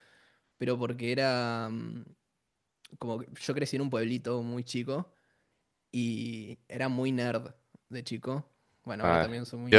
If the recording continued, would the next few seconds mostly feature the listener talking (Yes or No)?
Yes